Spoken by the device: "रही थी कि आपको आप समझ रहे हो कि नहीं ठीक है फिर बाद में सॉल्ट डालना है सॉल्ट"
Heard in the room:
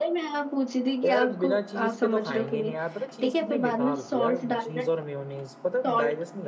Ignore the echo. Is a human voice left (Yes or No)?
Yes